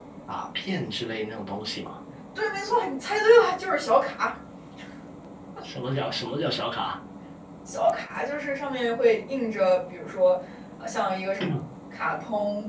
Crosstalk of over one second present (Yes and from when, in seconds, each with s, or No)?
No